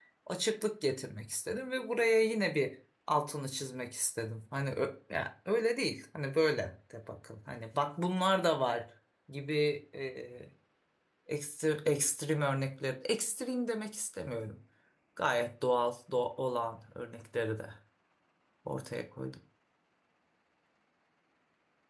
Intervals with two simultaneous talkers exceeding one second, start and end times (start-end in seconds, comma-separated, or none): none